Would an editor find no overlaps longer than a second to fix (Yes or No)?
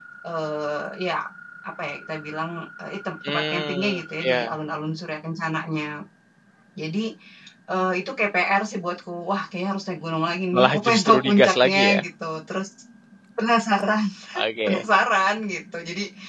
No